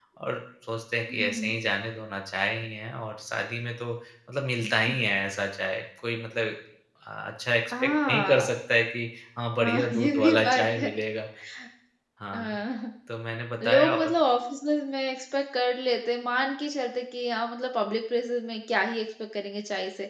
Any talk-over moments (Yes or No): Yes